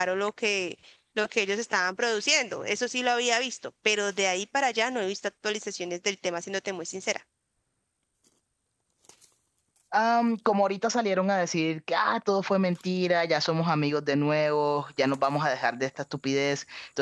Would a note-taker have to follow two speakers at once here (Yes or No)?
No